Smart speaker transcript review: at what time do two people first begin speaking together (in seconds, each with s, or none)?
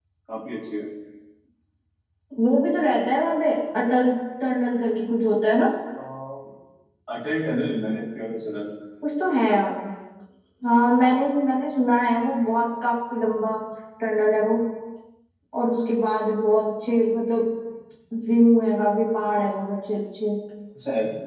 none